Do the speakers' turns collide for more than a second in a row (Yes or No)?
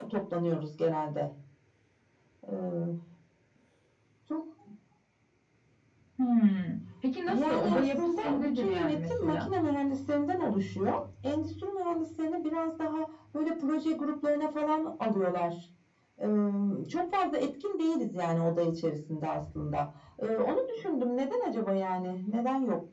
Yes